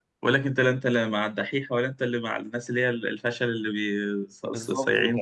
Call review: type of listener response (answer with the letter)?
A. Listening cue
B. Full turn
B